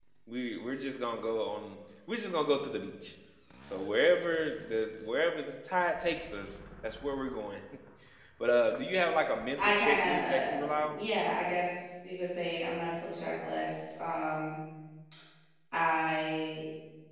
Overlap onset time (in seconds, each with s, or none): 9.6 s